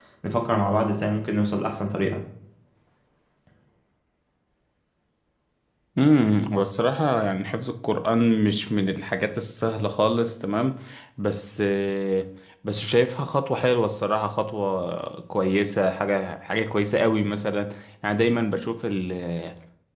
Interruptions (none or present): none